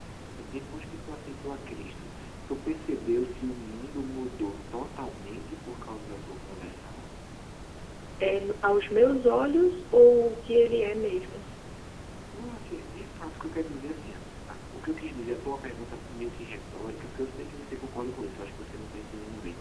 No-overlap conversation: Yes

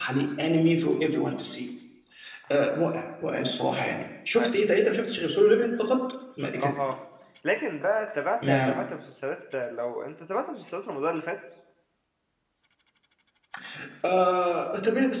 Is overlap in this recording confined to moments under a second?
Yes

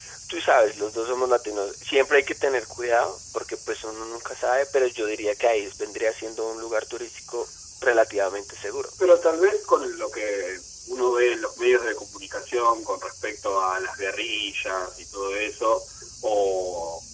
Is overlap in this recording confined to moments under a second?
Yes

